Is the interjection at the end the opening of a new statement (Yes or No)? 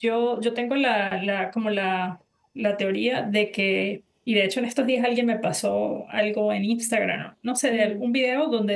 No